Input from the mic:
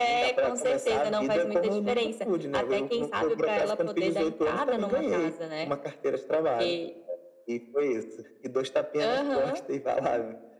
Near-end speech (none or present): none